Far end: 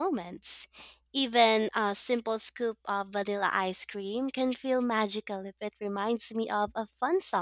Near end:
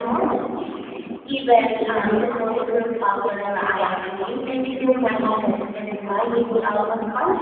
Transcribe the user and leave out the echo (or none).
none